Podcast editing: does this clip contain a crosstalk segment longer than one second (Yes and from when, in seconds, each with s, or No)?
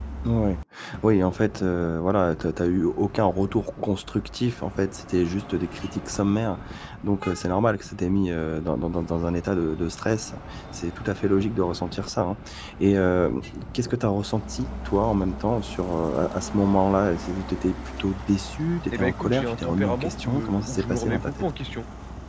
Yes, from 18.9 s